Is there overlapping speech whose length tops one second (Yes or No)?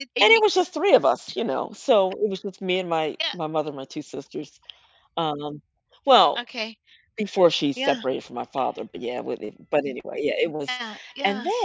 No